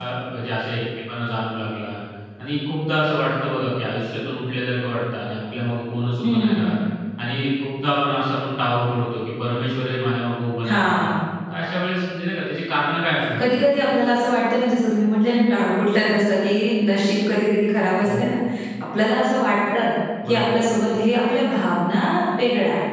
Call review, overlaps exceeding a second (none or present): none